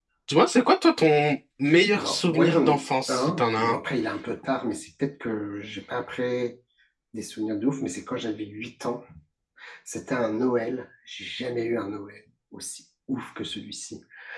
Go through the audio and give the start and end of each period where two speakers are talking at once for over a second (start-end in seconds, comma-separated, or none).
1.9-3.8